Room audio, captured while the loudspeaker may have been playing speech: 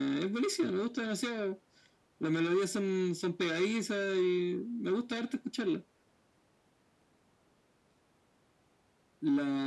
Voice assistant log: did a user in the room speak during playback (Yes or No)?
No